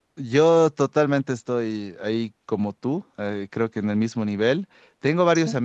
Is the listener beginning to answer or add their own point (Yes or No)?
No